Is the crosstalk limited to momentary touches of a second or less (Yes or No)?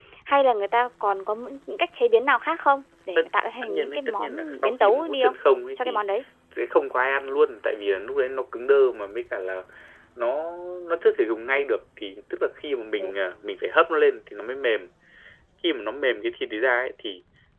No